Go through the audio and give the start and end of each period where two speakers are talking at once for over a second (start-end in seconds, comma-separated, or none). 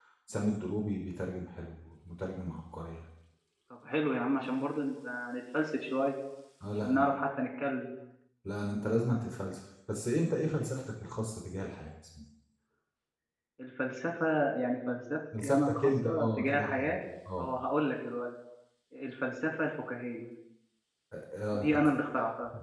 15.4-17.0